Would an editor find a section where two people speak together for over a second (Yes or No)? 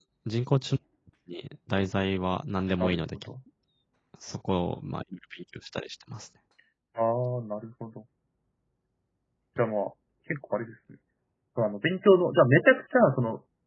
No